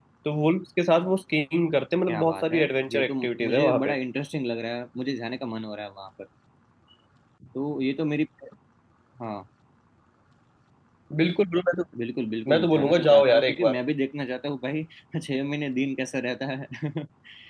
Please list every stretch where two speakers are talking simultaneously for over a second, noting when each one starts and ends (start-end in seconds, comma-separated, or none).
2.1-4.0, 12.5-13.8